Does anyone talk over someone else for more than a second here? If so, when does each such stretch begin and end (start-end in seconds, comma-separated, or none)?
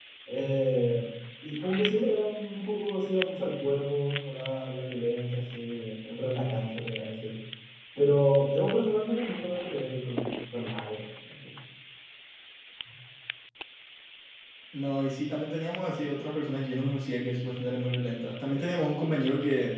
none